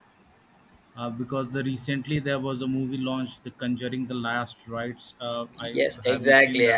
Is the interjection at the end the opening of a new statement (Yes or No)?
Yes